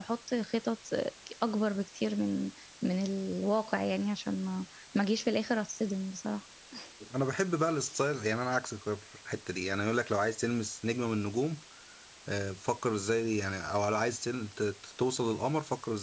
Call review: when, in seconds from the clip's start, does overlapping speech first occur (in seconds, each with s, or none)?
none